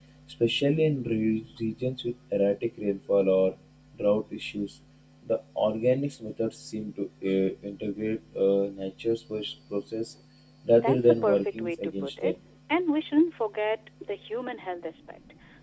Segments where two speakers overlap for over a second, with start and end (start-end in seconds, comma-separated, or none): 10.8-12.3